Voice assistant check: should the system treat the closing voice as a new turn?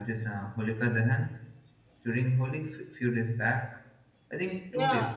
Yes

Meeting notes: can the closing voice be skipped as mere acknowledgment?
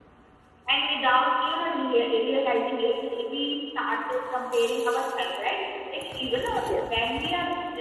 Yes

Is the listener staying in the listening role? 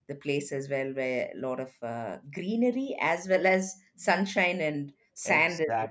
No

